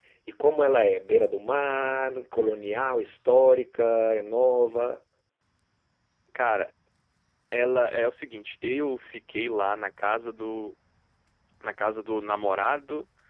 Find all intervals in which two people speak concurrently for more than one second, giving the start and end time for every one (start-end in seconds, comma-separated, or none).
none